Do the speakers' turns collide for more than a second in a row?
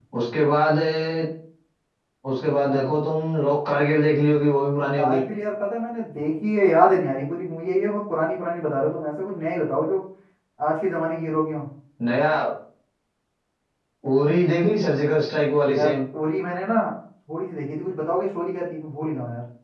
No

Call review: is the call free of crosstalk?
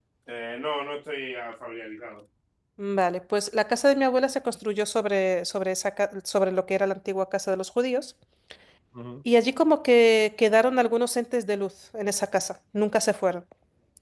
Yes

